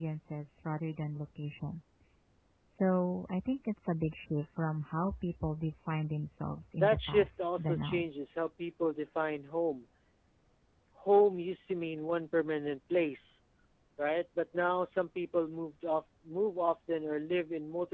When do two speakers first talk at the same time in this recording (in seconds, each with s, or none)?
6.8 s